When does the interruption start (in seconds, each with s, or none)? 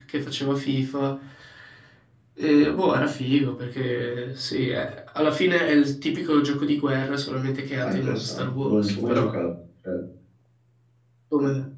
7.8 s